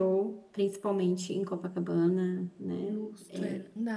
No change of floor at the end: No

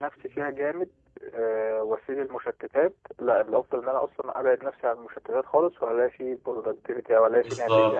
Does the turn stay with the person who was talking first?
No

